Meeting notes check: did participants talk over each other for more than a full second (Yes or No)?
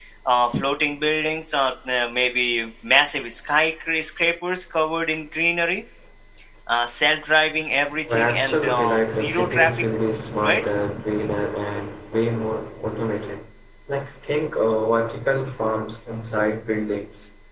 Yes